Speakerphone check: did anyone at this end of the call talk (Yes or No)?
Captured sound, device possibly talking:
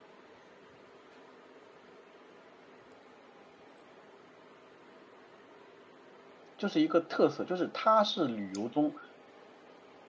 Yes